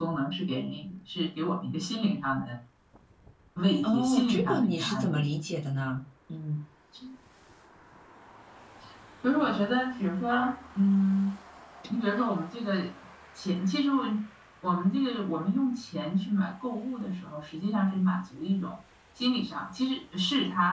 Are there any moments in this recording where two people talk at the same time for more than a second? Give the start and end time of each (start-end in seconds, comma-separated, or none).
3.8-5.3